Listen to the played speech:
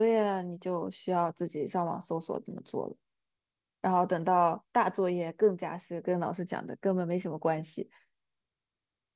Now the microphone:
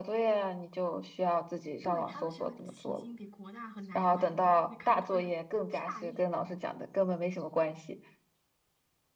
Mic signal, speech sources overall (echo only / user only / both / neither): both